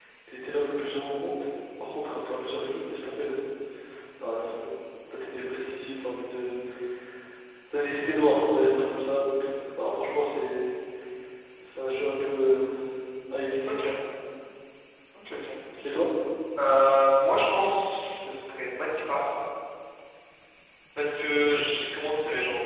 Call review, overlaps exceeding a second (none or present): none